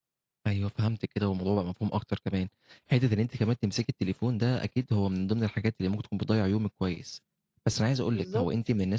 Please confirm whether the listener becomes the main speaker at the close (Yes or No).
No